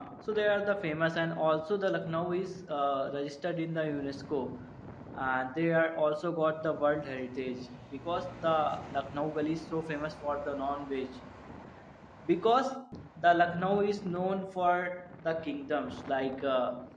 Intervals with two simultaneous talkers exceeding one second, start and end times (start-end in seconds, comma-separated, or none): none